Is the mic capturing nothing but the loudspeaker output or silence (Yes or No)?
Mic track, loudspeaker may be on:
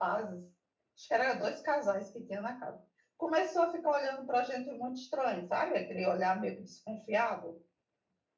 Yes